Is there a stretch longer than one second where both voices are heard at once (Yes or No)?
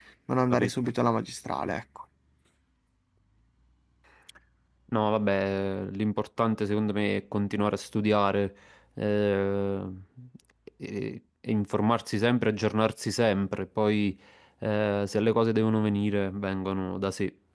No